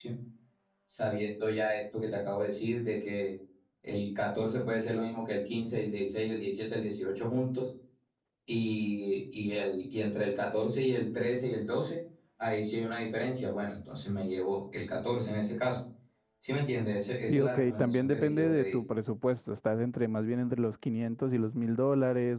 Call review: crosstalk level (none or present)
present